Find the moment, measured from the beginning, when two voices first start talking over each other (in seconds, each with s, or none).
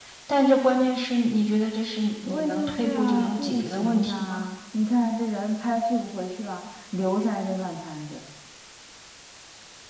2.3 s